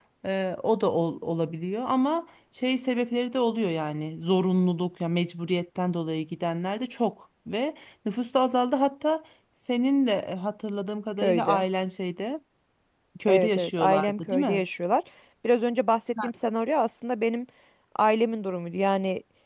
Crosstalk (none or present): present